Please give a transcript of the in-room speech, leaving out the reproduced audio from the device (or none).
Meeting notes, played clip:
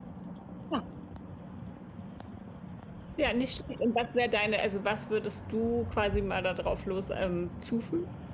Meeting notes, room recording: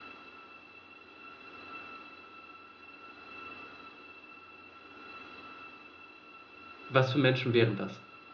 was für Menschen wären das?